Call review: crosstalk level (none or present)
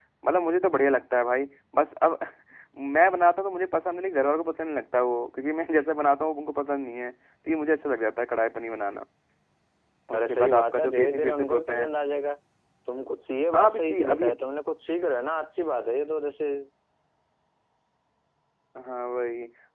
present